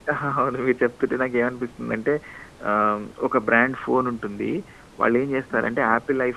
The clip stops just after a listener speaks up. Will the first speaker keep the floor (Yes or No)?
Yes